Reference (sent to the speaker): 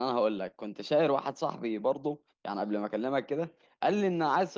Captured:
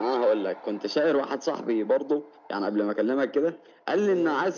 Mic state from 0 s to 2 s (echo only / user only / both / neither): echo only